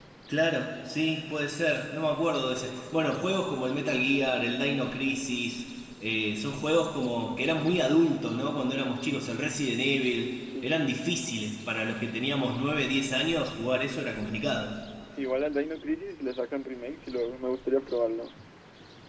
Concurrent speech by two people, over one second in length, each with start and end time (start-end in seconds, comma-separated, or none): none